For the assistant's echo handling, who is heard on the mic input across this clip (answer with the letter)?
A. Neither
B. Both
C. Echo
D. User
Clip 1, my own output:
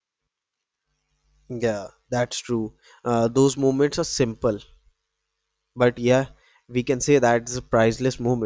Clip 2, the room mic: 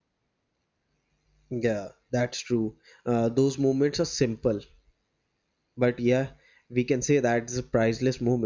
C